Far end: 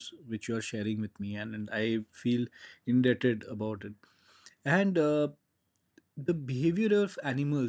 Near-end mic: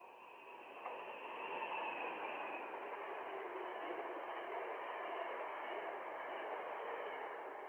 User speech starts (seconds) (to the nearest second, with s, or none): none